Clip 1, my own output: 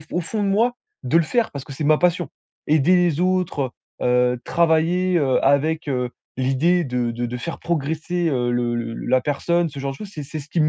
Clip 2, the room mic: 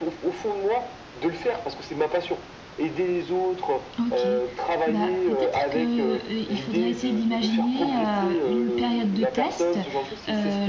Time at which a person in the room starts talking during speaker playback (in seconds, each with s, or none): 4.0 s